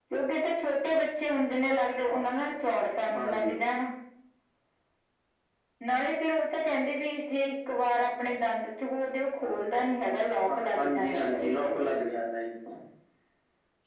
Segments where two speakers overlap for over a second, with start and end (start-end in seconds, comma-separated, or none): 10.5-11.9